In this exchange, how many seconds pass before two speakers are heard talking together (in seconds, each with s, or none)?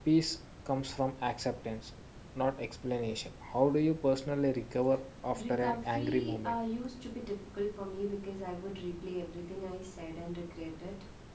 5.3 s